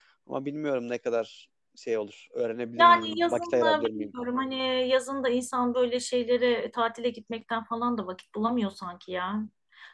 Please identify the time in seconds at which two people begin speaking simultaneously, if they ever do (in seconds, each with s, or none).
2.8 s